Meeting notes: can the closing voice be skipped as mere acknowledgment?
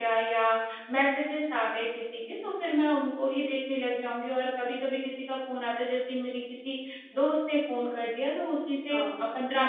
Yes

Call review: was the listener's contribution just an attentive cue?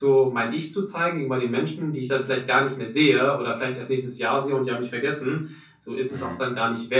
Yes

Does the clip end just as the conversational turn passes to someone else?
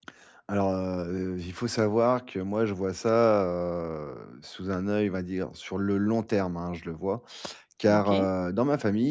No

